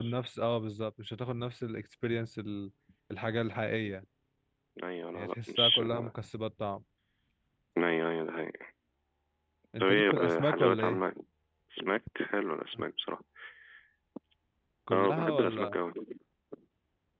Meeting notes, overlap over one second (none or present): present